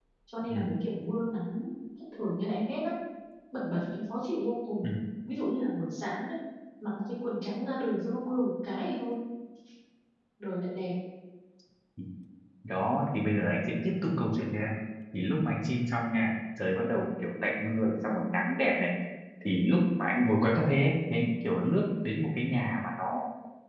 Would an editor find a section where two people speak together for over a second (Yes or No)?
No